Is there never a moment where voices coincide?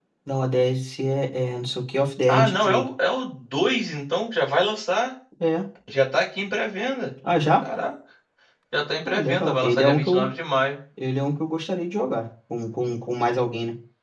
No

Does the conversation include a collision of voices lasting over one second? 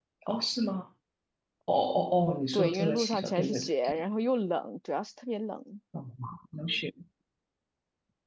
Yes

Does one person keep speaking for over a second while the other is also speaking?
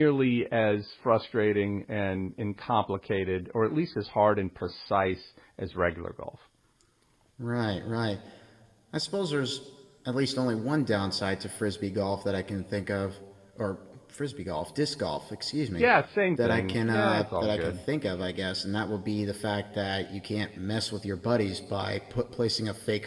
Yes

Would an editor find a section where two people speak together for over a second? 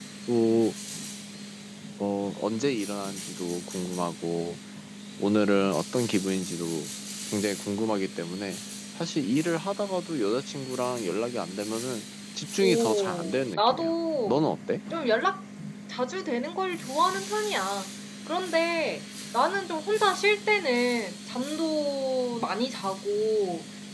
Yes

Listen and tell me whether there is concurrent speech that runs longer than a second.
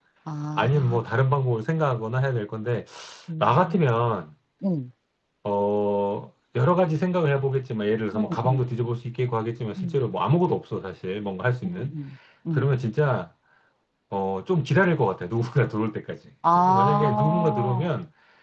Yes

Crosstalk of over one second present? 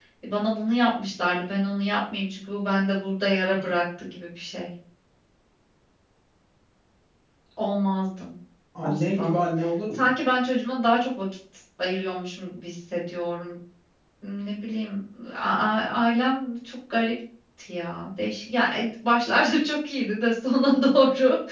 No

